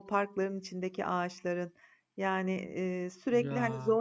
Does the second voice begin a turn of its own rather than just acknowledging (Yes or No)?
No